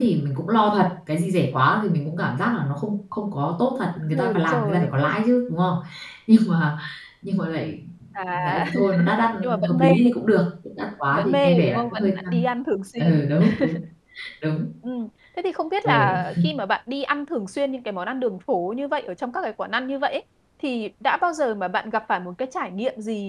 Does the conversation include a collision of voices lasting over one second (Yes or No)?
Yes